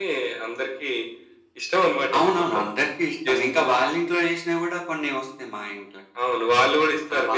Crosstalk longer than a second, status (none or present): none